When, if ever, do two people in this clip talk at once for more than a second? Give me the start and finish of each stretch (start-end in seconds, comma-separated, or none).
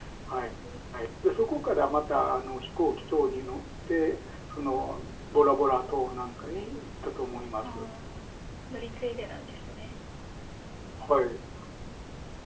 none